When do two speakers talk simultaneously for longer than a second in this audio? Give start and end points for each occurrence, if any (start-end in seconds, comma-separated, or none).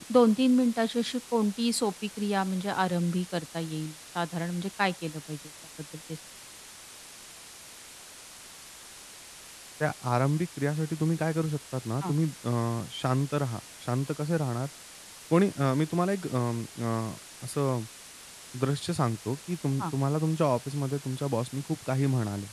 none